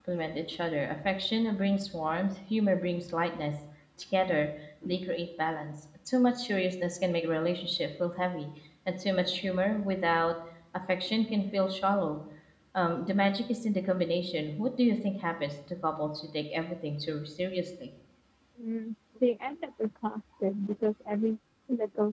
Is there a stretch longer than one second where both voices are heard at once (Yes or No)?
No